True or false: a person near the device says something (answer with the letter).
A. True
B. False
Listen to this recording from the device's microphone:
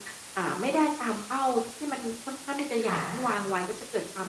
A